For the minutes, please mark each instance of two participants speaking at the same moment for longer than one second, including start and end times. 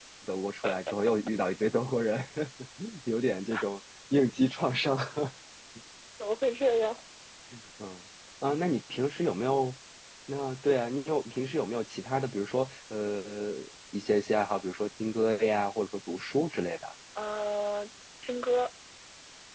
none

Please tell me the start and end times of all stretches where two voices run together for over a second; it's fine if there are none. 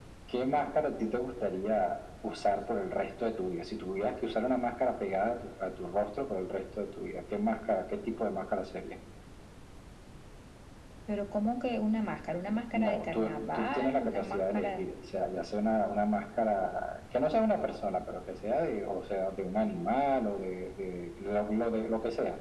12.7-14.8

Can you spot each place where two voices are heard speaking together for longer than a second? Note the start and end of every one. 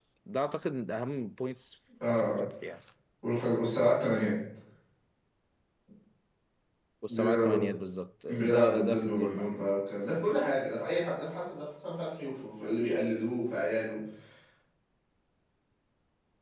8.3-9.7

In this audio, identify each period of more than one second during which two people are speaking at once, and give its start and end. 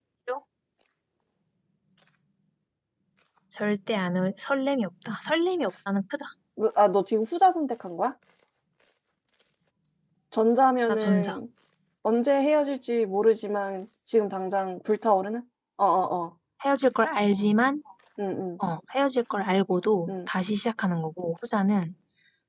none

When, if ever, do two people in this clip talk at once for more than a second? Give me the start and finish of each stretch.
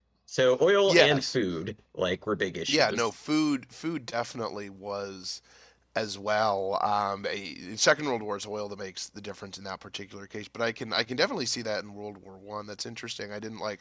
none

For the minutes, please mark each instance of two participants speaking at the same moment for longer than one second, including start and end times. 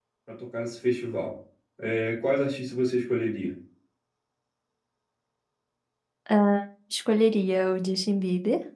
none

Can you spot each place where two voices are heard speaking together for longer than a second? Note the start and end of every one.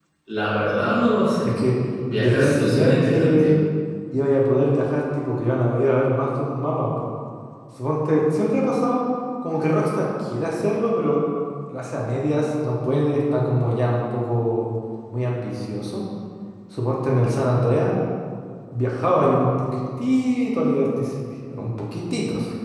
2.2-3.6

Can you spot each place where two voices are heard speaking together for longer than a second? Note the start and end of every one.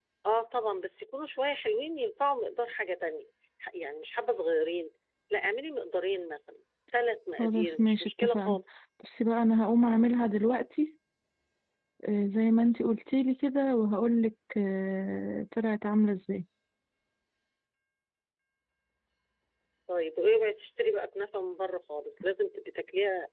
7.4-8.6

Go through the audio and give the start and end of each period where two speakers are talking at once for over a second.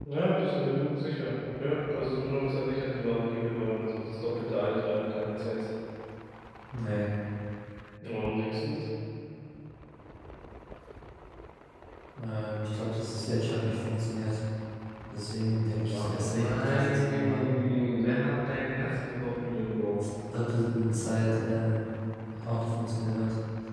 15.9-17.4

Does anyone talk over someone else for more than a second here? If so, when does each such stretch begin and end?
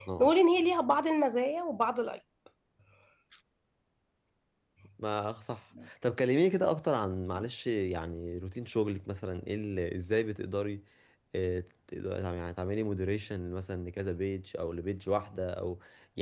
none

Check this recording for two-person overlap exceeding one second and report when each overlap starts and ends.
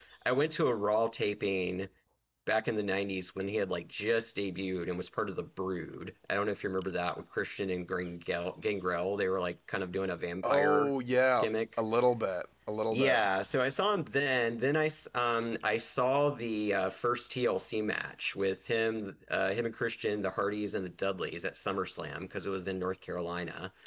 none

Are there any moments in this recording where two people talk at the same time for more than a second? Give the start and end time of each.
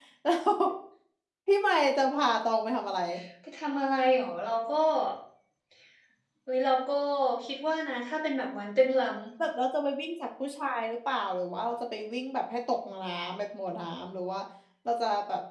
none

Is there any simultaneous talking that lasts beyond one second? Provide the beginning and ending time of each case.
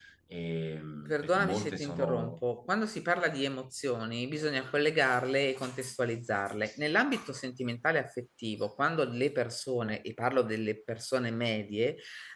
1.1-2.4

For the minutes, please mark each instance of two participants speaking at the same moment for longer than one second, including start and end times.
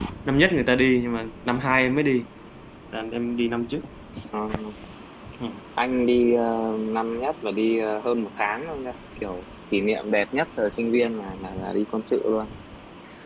none

